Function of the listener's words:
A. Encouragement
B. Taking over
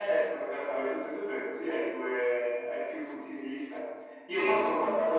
A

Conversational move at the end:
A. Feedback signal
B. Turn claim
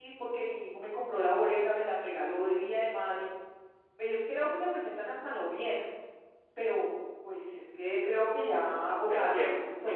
B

